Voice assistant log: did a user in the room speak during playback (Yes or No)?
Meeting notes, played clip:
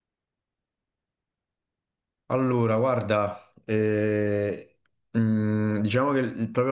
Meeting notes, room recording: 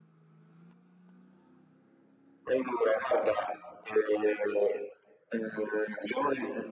No